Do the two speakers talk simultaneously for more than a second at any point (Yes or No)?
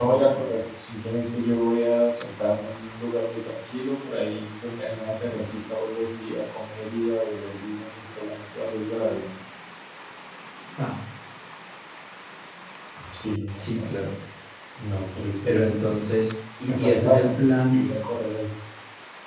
Yes